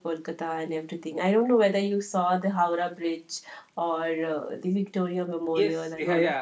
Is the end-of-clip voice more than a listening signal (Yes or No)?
Yes